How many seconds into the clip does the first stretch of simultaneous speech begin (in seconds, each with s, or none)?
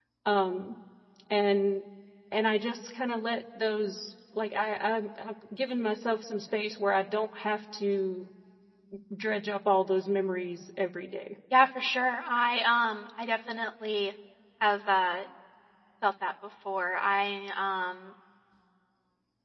none